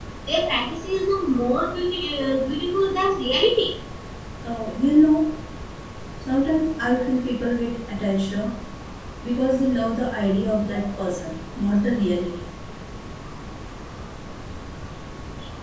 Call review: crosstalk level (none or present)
none